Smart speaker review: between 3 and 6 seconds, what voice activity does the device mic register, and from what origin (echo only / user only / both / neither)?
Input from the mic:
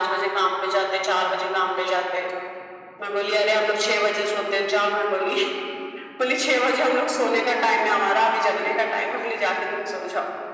echo only